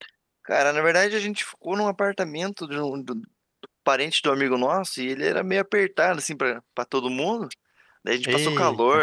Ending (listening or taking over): listening